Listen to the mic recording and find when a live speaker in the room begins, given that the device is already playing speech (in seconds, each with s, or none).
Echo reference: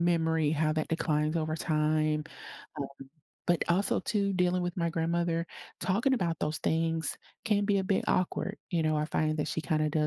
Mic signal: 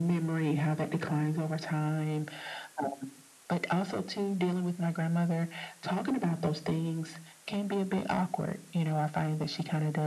none